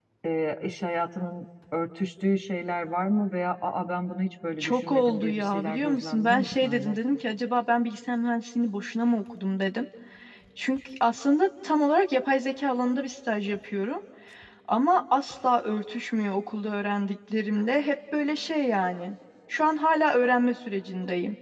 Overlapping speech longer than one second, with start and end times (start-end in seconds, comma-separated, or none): 4.6-7.0